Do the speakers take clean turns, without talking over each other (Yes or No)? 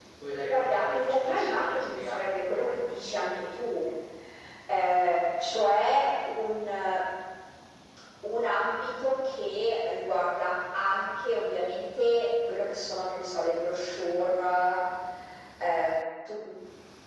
No